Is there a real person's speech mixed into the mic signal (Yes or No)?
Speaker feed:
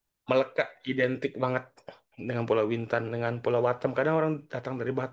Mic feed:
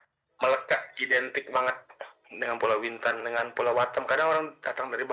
No